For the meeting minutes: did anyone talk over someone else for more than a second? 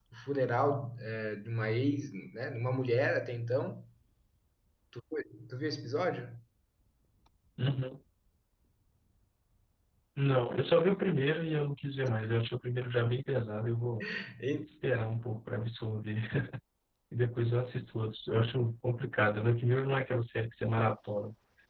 No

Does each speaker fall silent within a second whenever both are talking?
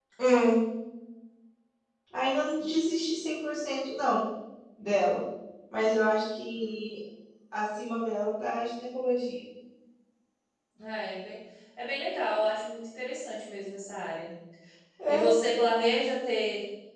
Yes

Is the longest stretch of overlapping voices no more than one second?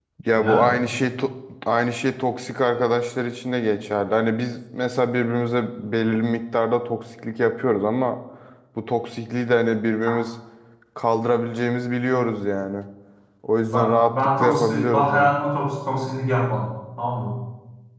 No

